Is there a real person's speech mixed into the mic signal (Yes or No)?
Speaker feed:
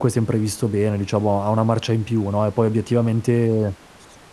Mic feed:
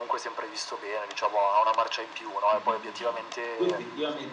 Yes